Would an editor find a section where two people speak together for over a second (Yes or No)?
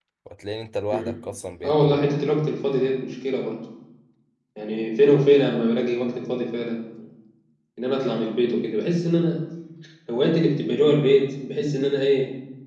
No